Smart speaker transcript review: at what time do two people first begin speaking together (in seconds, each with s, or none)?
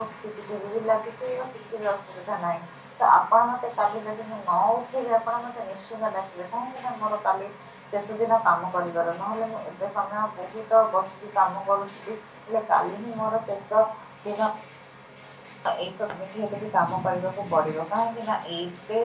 none